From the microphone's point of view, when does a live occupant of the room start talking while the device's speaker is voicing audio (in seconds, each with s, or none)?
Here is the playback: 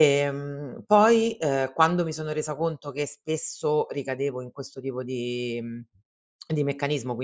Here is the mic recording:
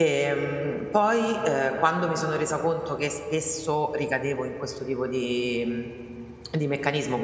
none